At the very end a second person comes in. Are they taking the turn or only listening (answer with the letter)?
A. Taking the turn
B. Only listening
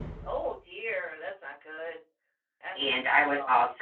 A